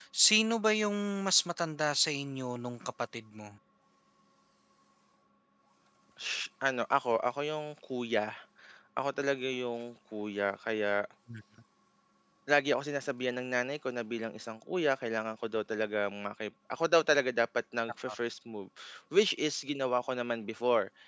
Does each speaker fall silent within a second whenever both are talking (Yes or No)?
Yes